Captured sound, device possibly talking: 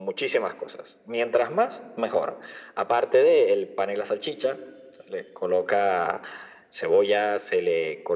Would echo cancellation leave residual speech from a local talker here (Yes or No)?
No